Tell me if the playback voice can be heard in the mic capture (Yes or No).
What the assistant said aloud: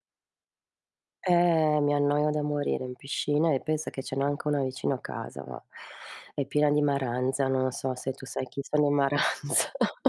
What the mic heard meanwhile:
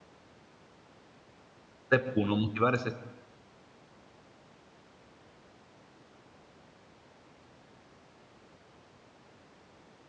No